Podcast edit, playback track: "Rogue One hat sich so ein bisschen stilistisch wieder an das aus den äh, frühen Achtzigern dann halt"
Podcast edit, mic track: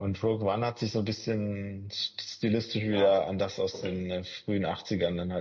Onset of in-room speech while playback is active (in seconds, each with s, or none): 2.8 s